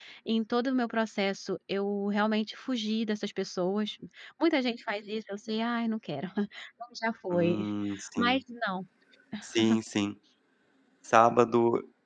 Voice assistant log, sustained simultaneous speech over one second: none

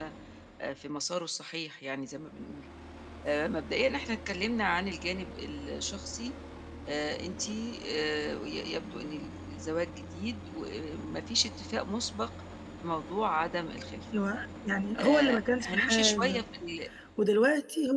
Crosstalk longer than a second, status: present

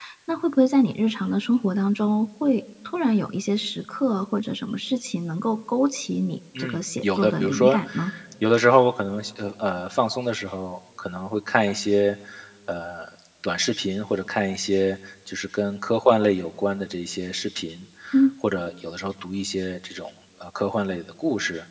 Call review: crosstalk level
present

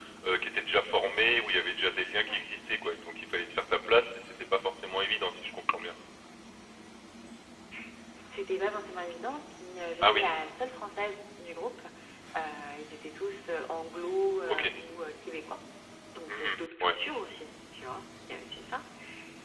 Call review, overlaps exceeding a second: none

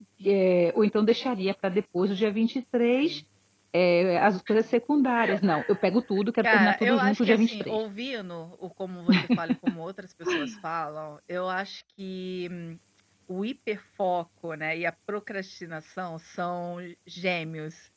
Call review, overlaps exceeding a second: present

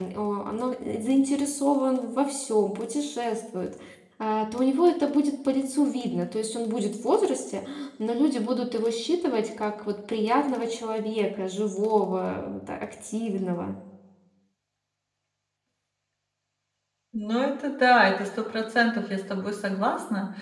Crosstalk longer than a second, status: none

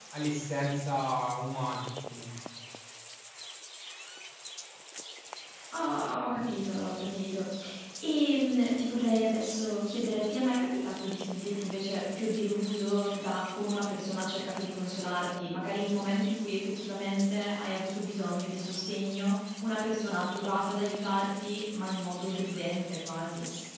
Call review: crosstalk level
none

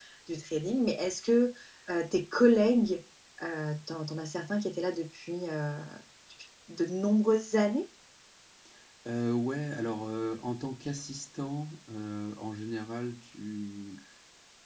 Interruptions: none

